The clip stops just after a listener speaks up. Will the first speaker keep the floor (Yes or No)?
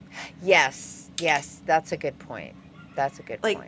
No